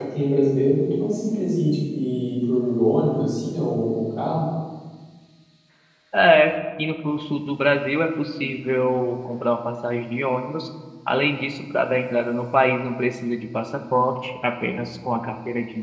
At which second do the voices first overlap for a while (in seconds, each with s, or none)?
none